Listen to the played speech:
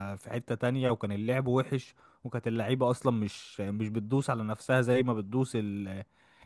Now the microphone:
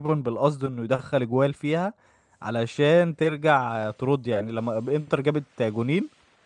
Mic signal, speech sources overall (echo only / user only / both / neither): user only